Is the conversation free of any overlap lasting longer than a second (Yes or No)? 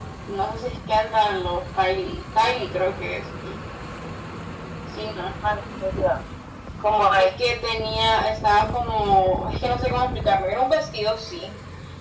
Yes